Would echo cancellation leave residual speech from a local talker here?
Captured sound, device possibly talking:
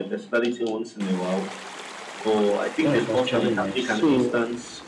Yes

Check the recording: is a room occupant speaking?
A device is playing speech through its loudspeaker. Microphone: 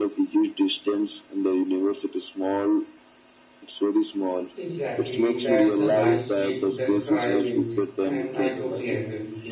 Yes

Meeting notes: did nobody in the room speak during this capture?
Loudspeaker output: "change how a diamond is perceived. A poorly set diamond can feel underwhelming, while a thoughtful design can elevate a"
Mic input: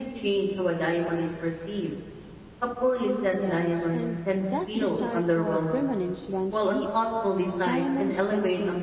No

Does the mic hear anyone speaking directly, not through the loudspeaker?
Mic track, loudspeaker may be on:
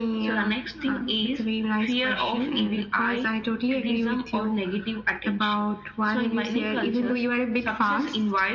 No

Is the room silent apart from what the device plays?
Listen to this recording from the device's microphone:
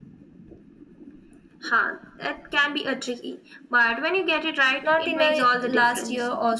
No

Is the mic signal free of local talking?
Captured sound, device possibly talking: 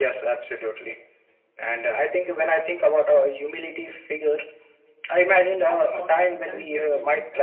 No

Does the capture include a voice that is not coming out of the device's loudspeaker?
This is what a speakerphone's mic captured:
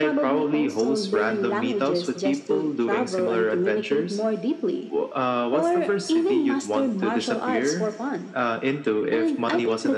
No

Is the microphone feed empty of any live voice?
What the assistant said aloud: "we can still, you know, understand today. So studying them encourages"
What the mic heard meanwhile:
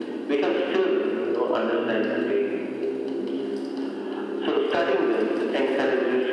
Yes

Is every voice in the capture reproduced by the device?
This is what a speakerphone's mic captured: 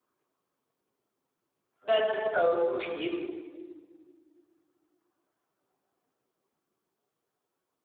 No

